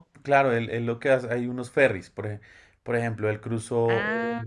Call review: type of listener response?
listening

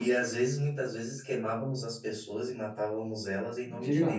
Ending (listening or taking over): taking over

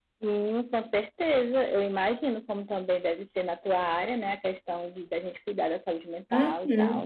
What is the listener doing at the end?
taking over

